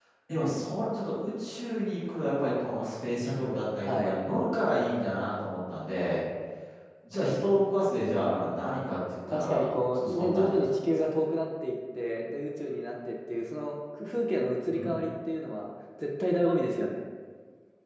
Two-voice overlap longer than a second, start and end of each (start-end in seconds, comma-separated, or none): 9.3-11.2